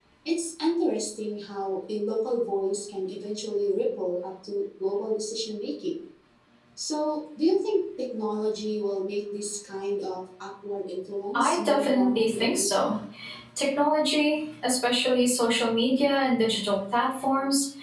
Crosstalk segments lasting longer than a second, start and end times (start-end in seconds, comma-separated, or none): 11.3-12.9